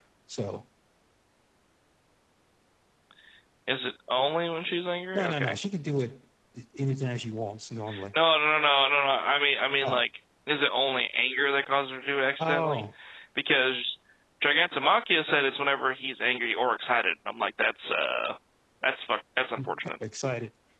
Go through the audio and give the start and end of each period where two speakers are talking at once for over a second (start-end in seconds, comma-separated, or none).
none